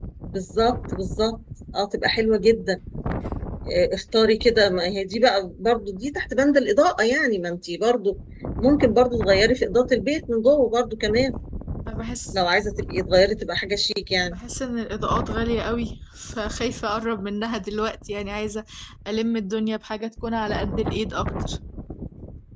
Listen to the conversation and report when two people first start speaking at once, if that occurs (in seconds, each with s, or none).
none